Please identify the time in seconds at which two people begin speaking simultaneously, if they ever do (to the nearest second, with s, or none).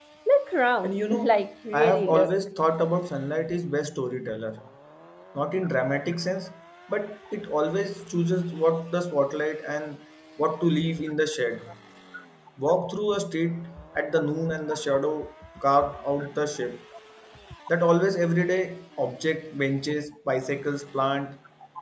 1 s